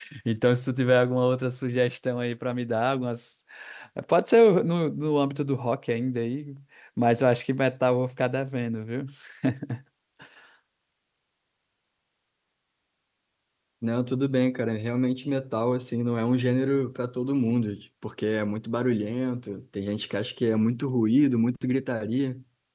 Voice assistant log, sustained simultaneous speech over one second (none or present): none